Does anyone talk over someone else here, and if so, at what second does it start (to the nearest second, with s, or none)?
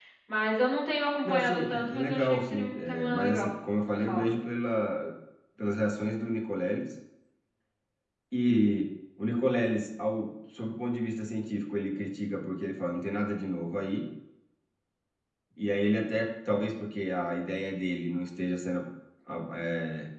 1 s